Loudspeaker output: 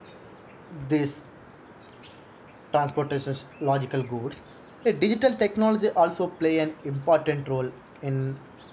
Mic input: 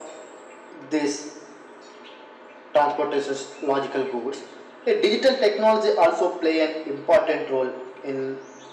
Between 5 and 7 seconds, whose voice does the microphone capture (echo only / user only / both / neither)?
echo only